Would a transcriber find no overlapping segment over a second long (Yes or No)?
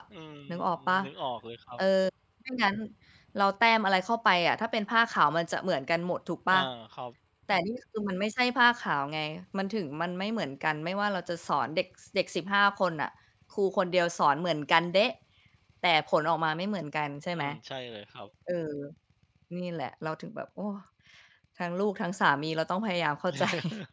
Yes